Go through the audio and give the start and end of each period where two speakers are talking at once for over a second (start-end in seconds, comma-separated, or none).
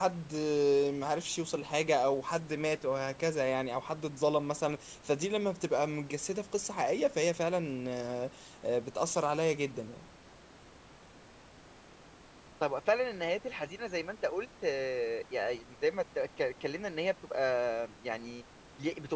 none